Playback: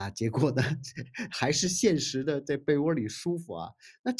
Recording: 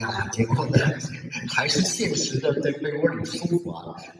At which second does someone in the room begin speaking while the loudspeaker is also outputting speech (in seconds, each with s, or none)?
none